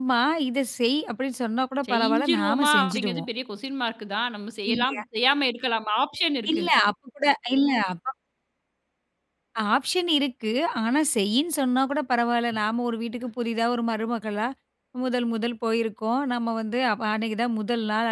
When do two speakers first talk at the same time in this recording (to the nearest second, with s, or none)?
2 s